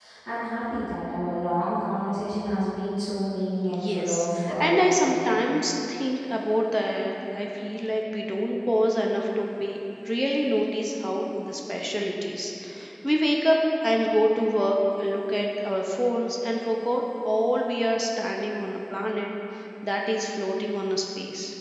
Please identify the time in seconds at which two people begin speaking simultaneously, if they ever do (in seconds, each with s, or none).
3.7 s